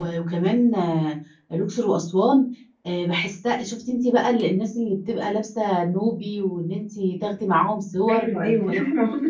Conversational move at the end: taking over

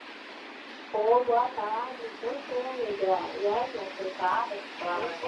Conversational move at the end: taking over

